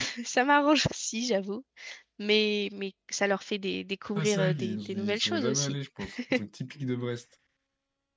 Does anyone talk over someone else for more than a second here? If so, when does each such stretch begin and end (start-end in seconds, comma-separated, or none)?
4.2-5.8